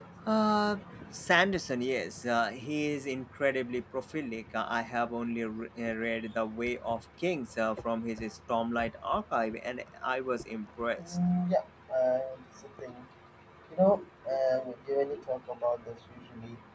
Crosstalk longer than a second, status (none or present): none